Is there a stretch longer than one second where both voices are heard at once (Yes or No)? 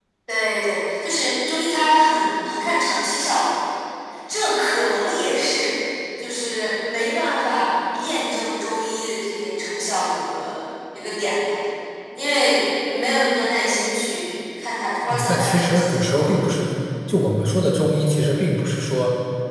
Yes